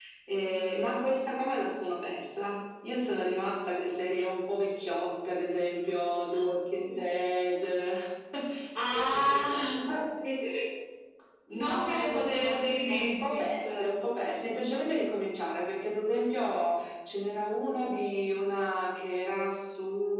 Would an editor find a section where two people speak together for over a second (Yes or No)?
Yes